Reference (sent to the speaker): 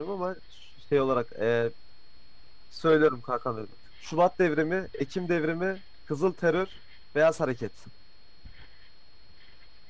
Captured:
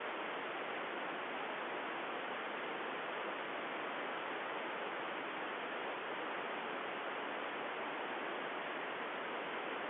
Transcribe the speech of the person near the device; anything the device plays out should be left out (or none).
none